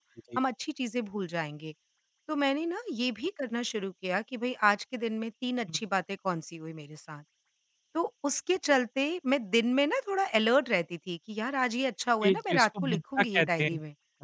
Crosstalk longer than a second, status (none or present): present